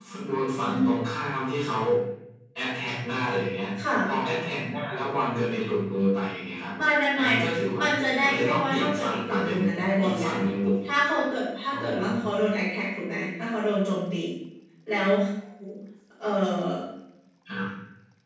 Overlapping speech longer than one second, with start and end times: 8.2-9.6

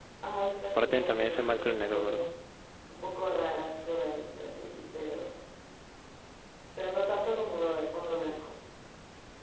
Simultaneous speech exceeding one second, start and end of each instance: 0.8-2.2

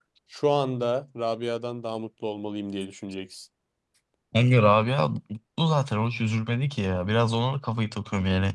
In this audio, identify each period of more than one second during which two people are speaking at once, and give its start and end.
none

